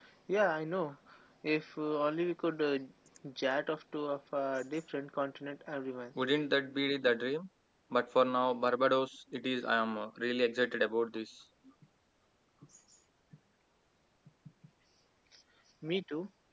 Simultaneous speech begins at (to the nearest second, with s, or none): none